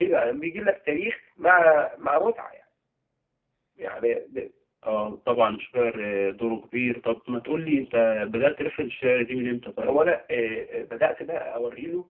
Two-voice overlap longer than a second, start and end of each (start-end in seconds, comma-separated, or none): none